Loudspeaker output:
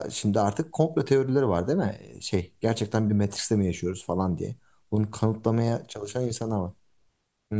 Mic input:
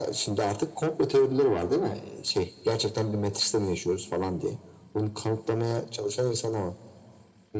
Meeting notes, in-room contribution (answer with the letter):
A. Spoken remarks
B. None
B